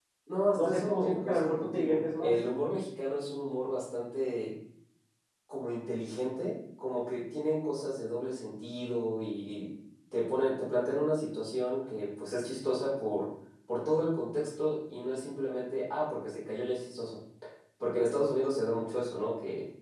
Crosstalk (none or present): present